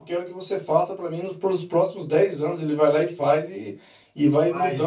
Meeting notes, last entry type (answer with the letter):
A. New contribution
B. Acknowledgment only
B